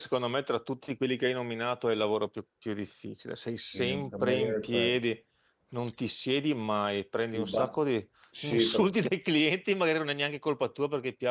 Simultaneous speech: Yes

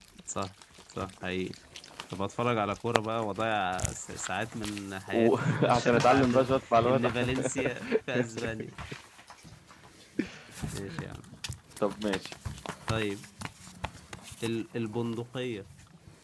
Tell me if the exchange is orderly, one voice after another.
No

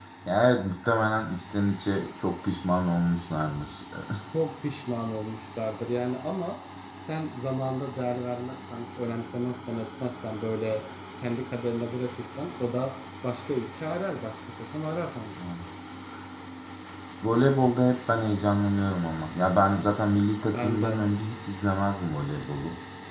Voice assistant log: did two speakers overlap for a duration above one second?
No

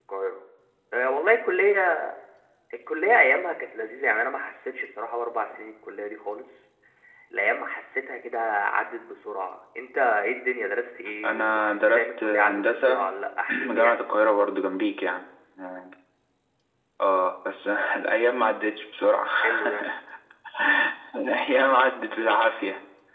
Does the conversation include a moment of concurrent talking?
Yes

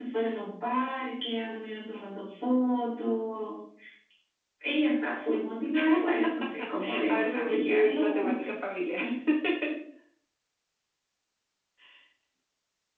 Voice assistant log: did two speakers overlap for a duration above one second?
Yes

